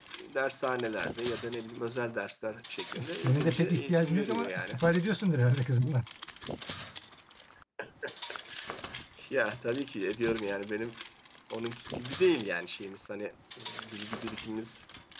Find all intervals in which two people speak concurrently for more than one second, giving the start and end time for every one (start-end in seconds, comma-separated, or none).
3.0-4.8